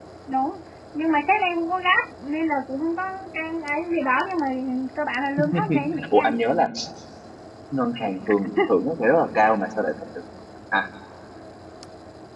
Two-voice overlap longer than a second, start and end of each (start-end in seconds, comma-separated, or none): none